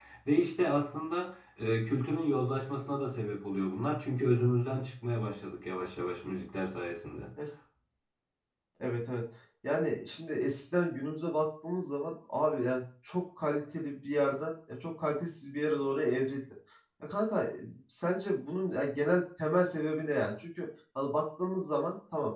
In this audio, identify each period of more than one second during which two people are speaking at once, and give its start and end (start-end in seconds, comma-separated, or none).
none